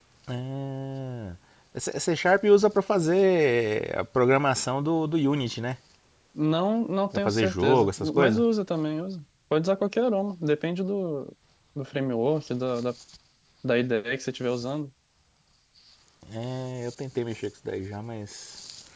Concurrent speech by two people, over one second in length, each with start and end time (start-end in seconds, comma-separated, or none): 7.1-8.4